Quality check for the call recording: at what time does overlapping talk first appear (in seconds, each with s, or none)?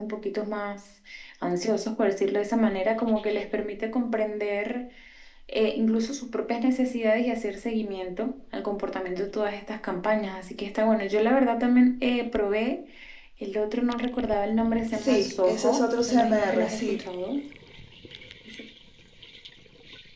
14.9 s